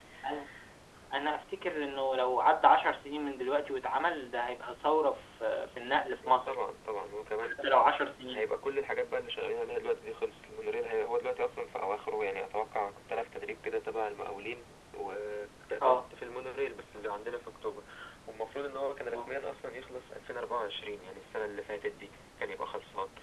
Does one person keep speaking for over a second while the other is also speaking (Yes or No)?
No